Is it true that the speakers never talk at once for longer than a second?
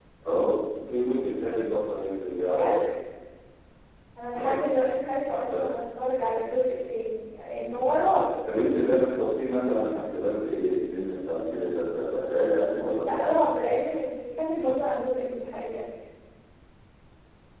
Yes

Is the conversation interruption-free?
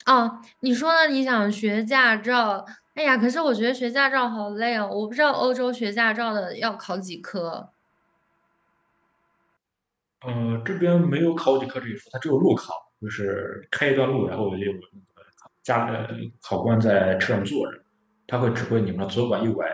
Yes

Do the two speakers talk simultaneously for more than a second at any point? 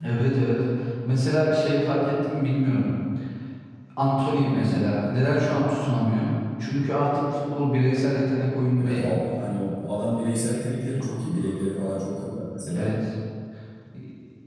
No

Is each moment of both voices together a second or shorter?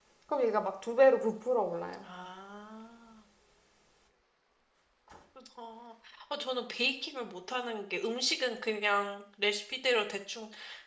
Yes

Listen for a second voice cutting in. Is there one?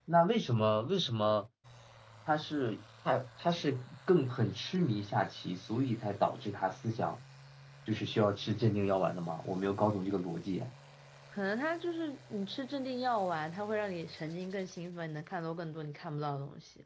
No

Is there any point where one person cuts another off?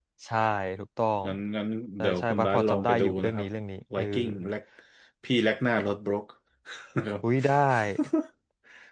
Yes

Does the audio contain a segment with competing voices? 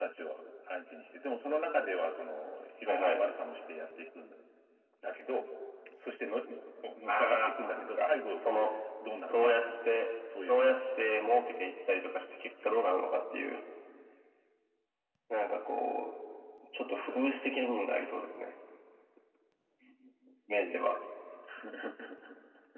Yes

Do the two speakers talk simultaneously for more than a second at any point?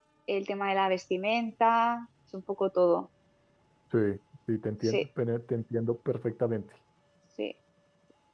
No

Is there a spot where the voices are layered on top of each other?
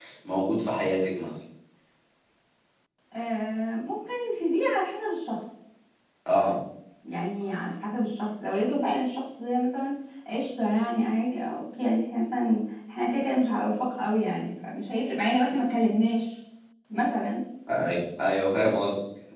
No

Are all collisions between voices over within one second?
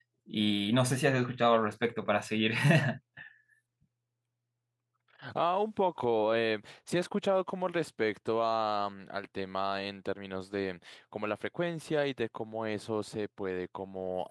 Yes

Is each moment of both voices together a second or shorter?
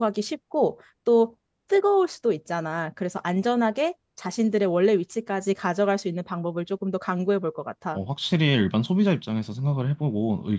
Yes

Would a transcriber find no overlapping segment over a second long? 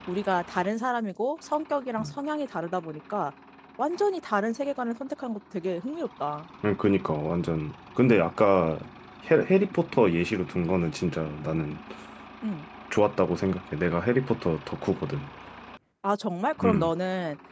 Yes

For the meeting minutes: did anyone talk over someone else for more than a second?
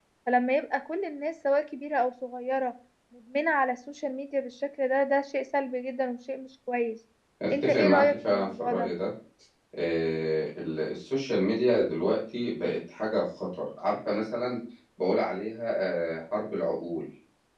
Yes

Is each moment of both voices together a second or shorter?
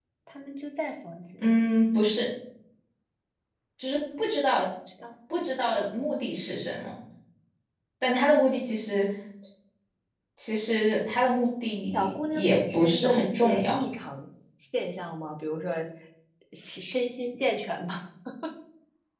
No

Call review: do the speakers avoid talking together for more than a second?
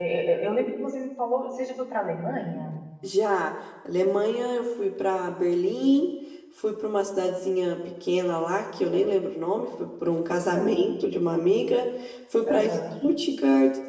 Yes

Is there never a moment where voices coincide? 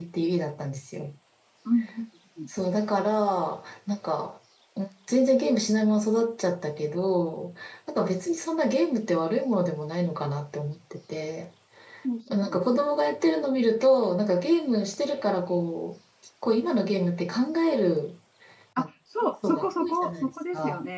No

